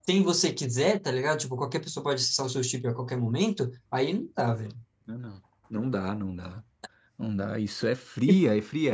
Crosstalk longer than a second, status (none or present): none